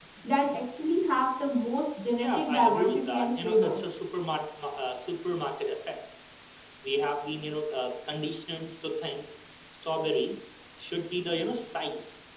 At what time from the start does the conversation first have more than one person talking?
2 s

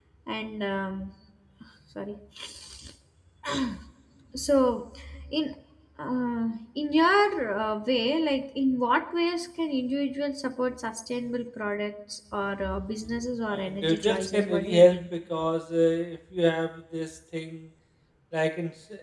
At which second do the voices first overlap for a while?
13 s

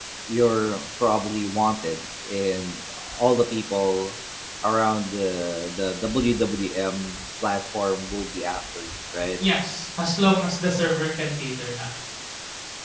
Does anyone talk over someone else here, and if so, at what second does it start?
none

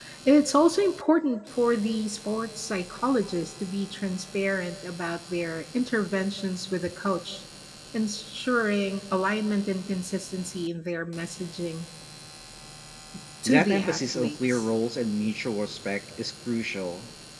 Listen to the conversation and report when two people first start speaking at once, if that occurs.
13 s

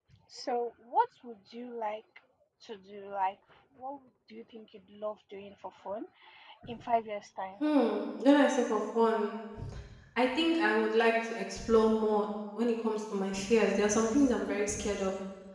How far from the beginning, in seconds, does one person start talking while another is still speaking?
none

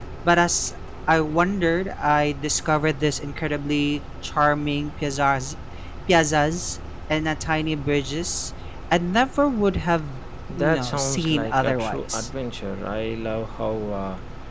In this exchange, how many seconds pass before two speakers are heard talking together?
11 s

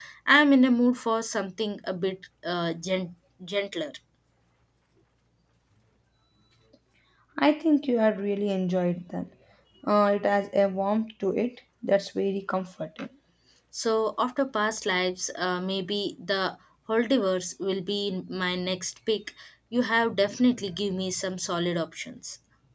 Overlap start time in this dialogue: none

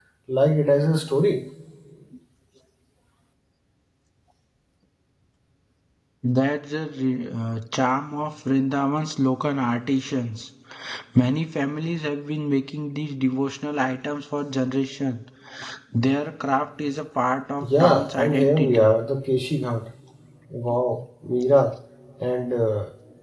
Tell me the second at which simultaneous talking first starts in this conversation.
18 s

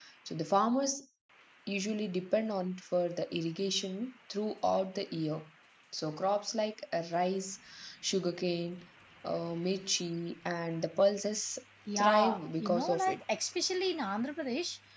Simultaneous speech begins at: 12 s

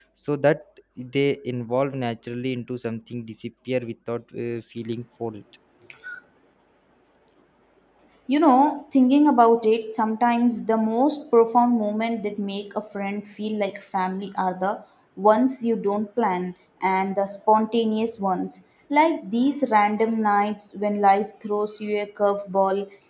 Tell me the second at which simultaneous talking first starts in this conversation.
none

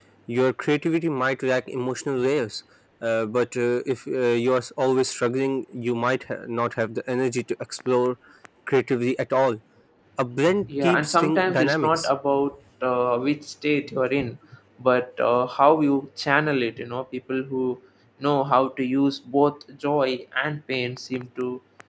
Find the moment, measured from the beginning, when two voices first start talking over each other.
11 s

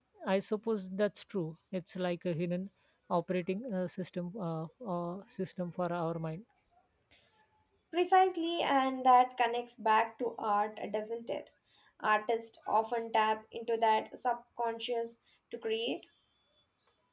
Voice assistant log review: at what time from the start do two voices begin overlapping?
none

